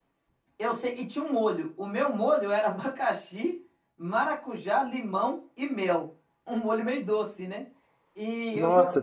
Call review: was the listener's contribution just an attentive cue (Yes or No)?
Yes